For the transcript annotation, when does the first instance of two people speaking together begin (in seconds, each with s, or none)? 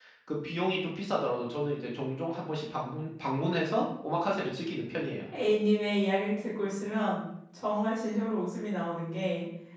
none